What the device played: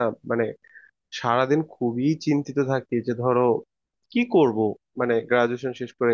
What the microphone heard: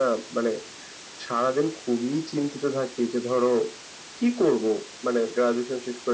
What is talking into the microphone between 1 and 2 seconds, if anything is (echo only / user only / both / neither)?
echo only